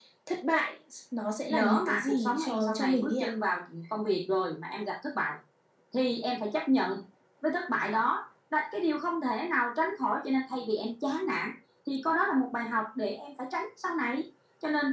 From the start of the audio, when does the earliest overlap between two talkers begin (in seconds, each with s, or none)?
1.5 s